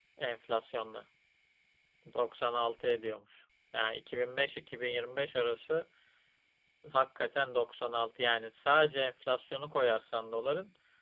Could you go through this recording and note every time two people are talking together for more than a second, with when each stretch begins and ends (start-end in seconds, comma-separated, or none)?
none